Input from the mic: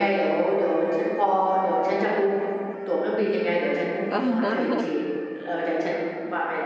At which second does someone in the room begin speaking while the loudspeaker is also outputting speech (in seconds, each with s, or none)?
4.1 s